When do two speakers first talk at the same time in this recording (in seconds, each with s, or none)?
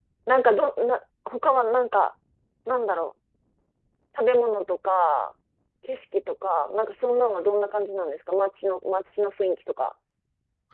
none